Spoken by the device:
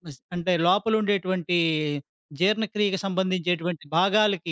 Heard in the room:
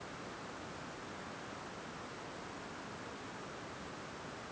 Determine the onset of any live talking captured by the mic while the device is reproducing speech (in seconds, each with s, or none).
none